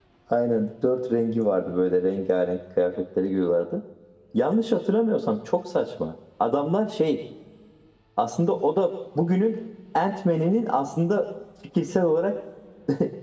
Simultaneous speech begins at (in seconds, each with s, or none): none